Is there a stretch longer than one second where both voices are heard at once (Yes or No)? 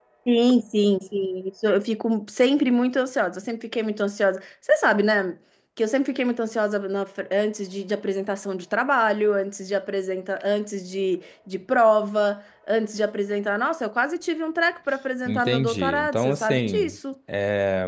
Yes